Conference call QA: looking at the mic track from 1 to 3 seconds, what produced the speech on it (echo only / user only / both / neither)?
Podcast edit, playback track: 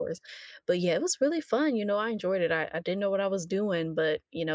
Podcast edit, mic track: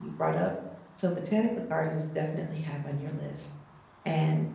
user only